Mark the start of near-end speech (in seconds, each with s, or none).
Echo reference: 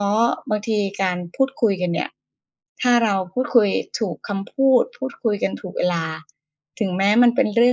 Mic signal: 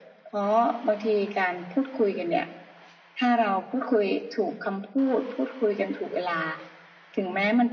none